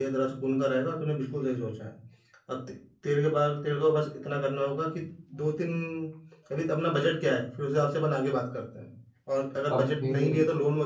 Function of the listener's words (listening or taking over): listening